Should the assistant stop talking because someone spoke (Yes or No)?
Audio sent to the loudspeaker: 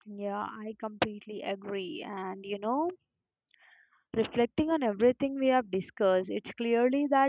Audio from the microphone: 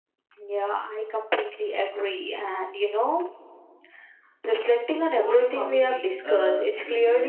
Yes